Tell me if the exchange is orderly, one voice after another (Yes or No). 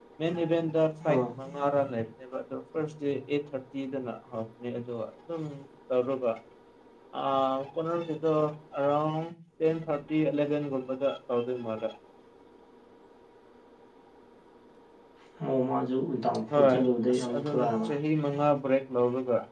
No